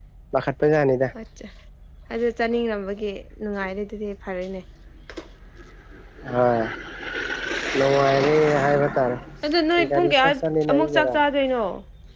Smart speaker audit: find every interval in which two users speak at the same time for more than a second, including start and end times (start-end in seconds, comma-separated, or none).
9.9-11.1